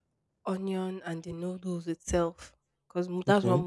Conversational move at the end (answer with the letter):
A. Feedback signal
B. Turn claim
A